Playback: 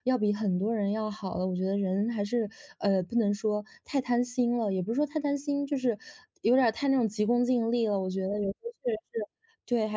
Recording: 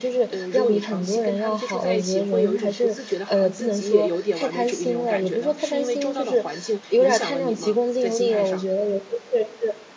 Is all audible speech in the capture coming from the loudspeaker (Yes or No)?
No